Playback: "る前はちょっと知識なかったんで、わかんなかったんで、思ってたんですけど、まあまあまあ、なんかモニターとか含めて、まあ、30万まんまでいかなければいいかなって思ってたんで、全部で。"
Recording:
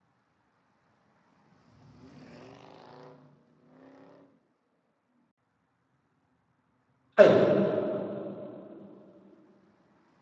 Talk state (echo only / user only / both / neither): user only